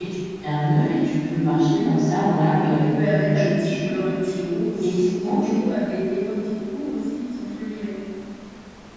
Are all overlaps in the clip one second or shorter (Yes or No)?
No